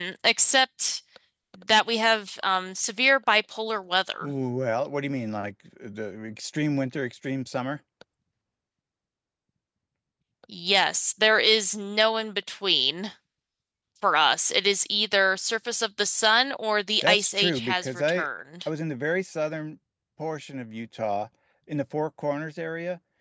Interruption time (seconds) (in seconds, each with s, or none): 17.0 s